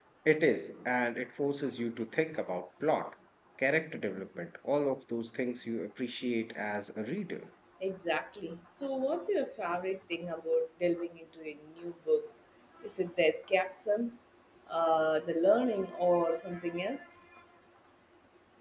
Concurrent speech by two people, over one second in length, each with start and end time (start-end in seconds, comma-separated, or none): none